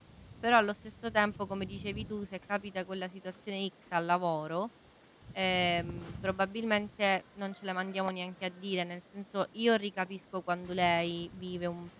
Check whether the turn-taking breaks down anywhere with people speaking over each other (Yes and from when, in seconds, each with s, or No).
No